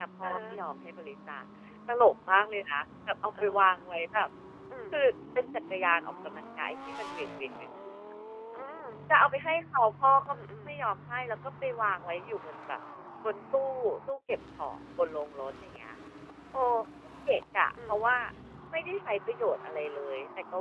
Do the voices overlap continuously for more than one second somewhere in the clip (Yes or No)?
No